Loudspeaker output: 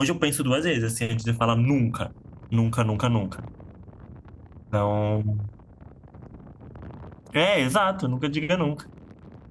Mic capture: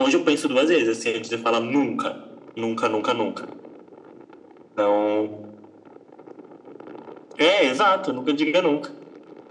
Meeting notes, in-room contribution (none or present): none